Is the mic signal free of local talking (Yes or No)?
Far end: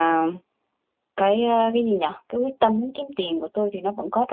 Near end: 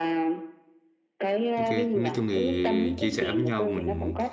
No